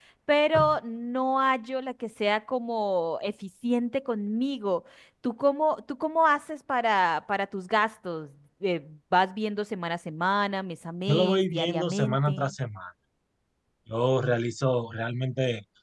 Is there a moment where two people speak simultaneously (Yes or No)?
Yes